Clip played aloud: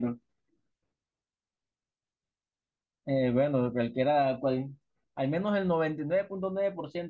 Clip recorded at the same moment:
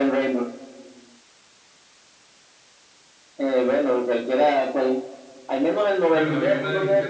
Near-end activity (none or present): present